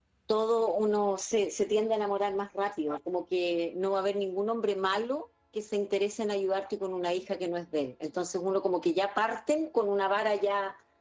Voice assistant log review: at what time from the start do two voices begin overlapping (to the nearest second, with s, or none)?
none